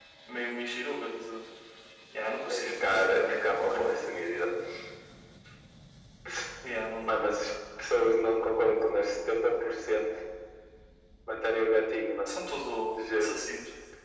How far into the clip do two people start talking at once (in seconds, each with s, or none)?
2.5 s